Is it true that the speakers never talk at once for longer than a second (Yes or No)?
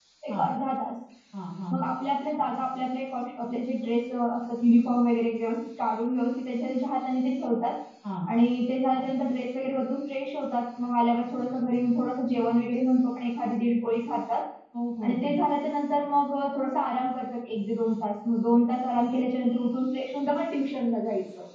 Yes